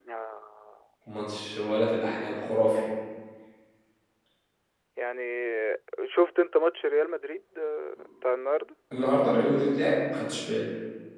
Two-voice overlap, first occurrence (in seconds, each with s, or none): none